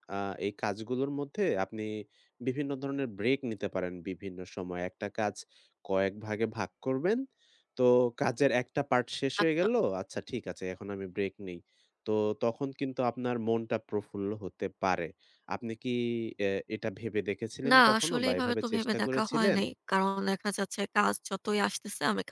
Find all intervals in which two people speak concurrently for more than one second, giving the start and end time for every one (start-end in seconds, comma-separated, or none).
17.7-19.6